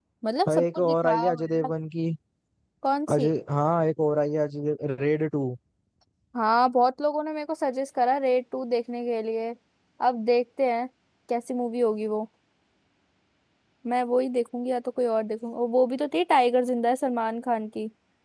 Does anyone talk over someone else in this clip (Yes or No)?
Yes